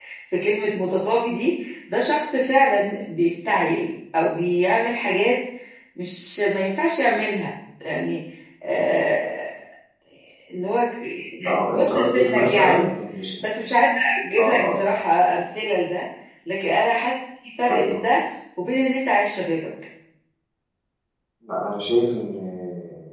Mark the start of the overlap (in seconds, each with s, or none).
11.4 s